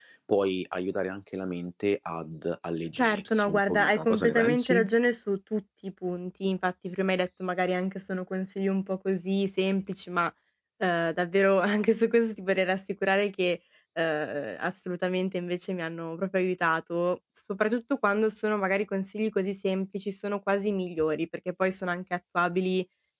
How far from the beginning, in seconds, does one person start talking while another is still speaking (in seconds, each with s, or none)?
3.0 s